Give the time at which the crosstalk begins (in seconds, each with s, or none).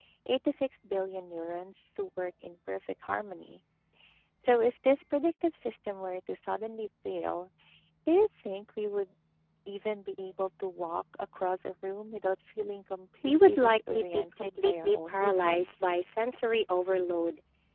13.2 s